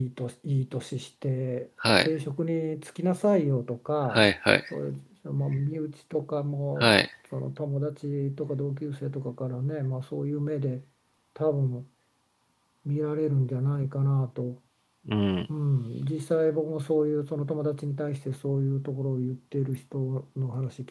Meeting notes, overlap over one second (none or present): none